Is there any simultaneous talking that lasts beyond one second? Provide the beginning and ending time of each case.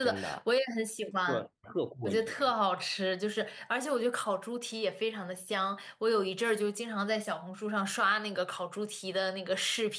none

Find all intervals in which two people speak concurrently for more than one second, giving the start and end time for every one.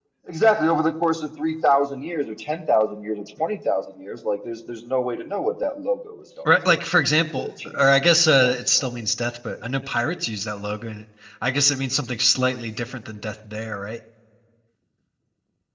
7.3-8.9

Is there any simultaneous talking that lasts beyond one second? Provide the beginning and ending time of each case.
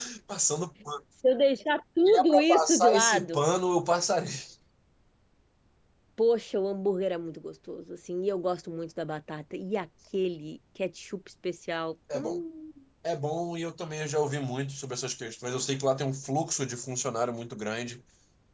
2.1-3.4

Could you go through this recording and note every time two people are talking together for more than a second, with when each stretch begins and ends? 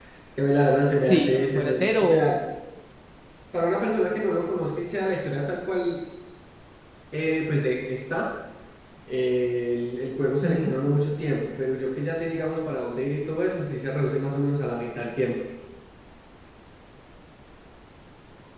1.0-2.4

